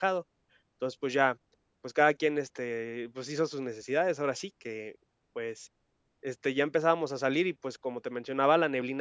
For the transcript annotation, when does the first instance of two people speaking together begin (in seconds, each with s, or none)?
none